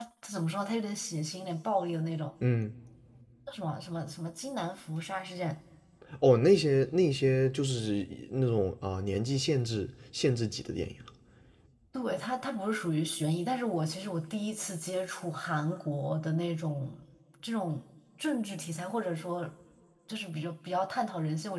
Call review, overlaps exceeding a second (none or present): none